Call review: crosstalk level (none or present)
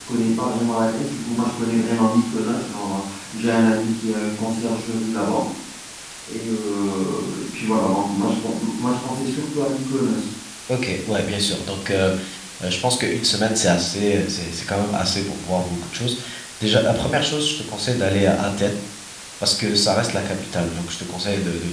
none